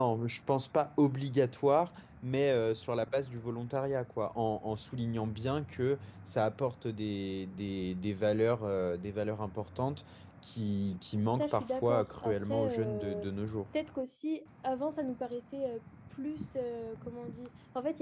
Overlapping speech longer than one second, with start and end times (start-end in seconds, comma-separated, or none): 11.4-13.2